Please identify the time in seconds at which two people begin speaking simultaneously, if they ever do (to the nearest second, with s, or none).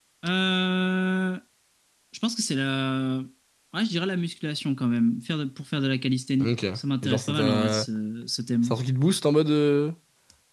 6 s